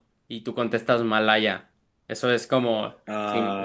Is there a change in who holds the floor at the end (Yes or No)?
No